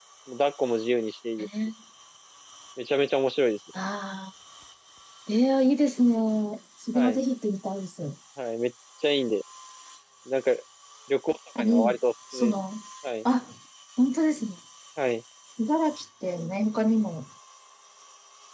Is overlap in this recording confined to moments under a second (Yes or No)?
Yes